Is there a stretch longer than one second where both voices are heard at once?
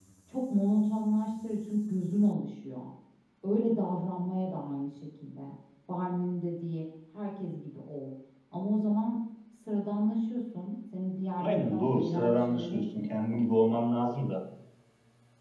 Yes, from 11.4 s

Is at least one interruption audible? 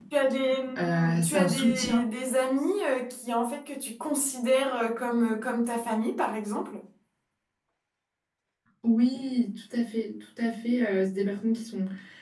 Yes, from 0.8 s

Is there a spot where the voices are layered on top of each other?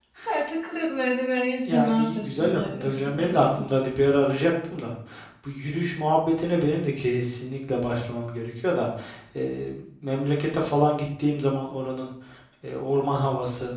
Yes, from 1.7 s

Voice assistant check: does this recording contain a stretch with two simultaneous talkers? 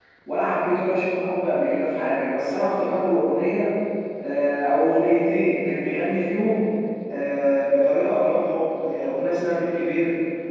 No

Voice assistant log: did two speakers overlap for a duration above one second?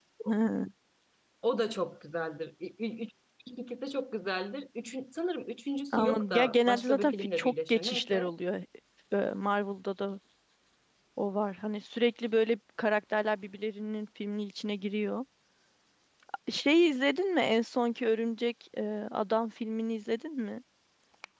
Yes, from 5.9 s

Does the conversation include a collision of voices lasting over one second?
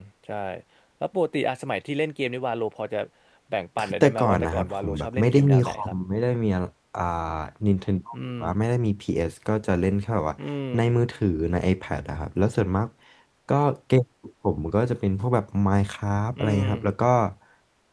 Yes, from 3.8 s

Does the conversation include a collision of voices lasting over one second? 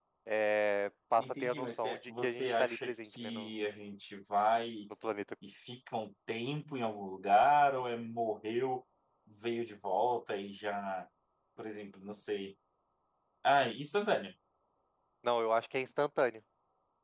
Yes, from 1.2 s

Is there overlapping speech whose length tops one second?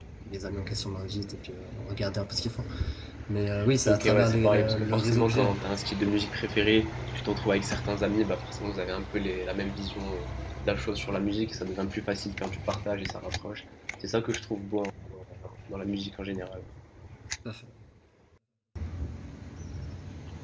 Yes, from 3.8 s

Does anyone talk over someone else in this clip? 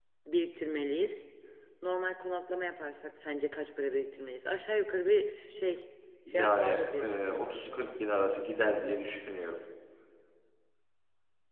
Yes, from 6.3 s

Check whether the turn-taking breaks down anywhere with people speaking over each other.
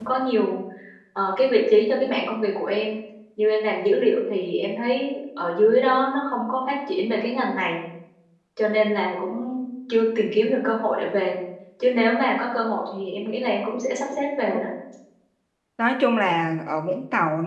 No

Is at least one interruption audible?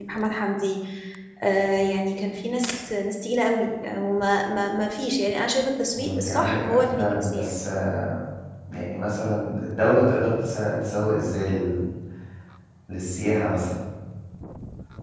Yes, from 5.9 s

